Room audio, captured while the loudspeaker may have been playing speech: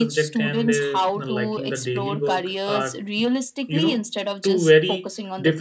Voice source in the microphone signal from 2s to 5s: both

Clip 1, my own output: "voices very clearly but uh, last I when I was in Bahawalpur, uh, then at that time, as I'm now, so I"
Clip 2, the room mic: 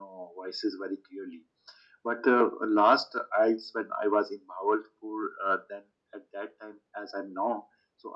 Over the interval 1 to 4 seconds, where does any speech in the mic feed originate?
echo only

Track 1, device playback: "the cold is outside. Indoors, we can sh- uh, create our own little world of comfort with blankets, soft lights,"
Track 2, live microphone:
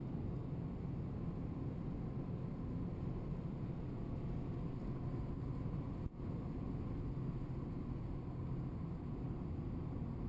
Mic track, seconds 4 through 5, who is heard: neither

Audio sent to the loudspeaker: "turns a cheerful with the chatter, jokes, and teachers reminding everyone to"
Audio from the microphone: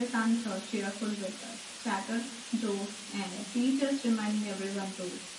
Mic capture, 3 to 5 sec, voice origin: echo only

